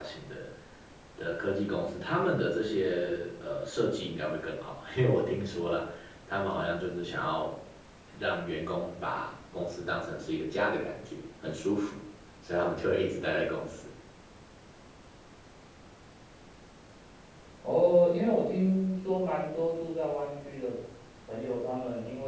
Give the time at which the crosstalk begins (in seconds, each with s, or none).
none